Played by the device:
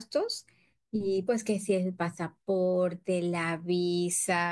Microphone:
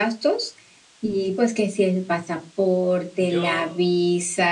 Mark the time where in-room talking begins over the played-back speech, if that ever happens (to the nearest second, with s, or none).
3 s